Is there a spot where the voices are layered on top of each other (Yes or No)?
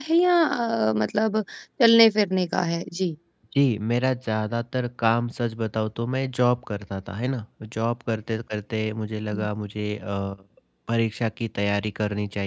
No